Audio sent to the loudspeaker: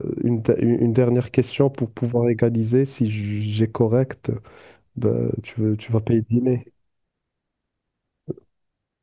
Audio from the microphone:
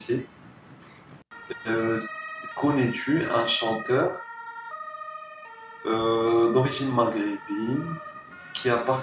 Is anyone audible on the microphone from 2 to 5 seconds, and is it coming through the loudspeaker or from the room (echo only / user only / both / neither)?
user only